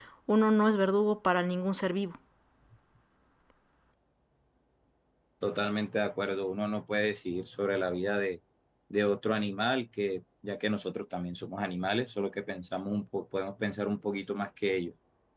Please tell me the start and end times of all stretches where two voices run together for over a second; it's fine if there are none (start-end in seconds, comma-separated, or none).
none